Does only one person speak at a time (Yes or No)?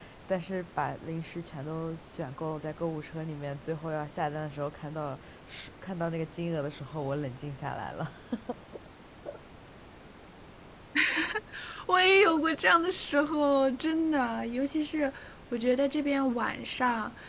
Yes